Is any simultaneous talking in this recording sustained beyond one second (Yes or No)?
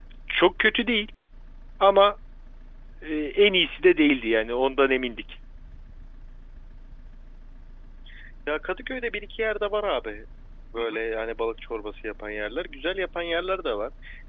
No